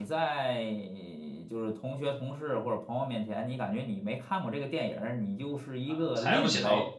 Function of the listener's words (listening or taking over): taking over